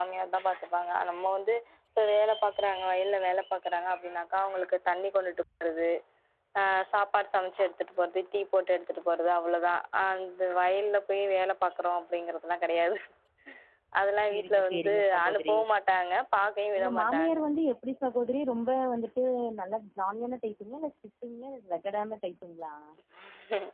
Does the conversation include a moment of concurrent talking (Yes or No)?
Yes